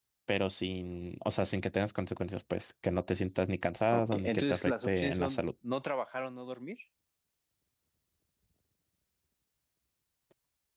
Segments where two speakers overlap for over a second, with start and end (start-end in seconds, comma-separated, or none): 3.9-5.4